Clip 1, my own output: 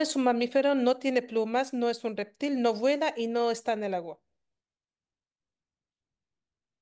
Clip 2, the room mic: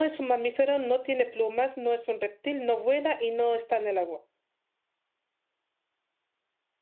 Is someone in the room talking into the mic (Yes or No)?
No